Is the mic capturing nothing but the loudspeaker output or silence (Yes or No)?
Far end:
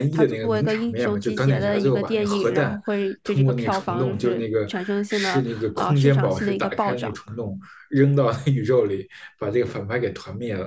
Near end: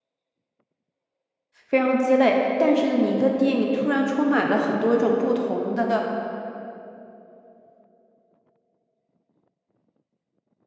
No